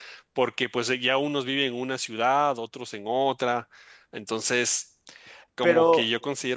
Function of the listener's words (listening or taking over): listening